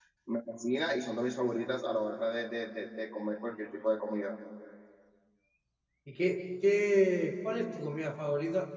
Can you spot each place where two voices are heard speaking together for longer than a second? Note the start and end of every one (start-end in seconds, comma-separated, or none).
none